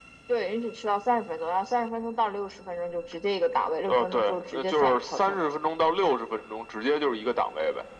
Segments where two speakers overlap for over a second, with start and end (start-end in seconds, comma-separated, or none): 3.9-5.4